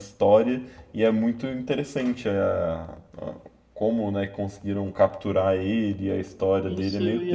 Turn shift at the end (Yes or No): Yes